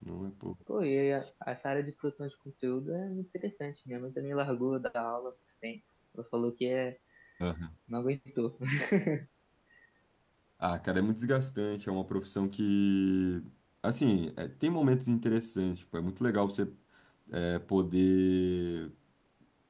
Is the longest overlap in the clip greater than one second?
No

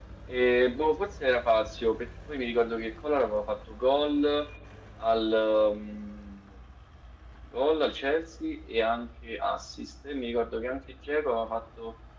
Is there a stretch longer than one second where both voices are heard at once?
No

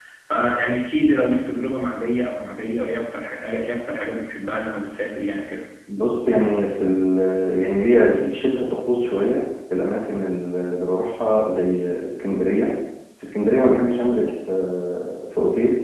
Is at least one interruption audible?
No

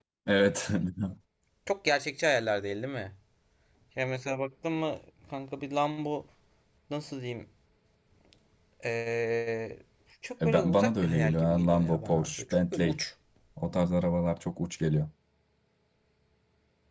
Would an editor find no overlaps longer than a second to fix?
No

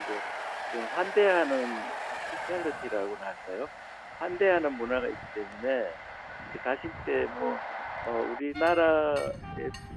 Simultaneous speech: No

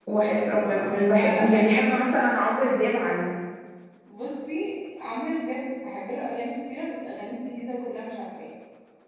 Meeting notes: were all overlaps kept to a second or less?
Yes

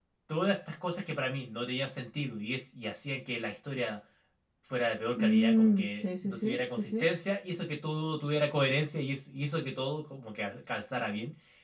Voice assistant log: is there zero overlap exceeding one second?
No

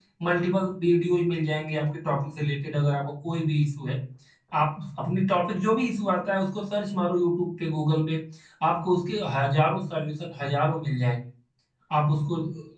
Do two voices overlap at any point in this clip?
No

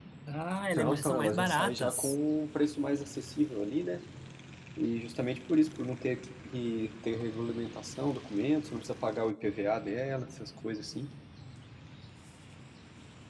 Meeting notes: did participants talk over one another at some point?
Yes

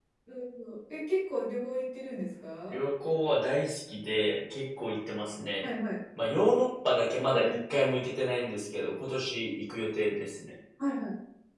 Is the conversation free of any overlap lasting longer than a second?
Yes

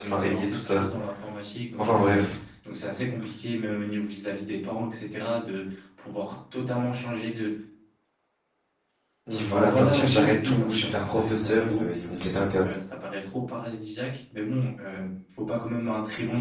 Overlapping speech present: Yes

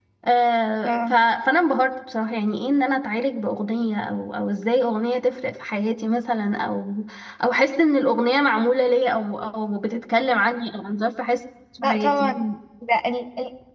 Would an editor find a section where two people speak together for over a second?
No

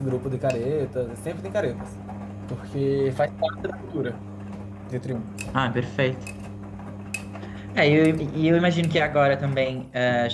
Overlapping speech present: No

